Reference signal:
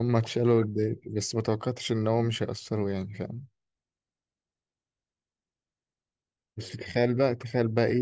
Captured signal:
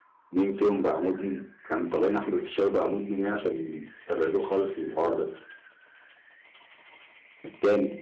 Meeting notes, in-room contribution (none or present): present